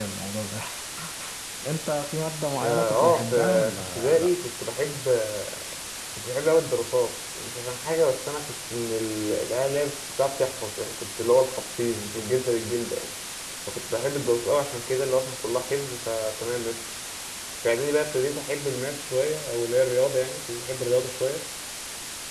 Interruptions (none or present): present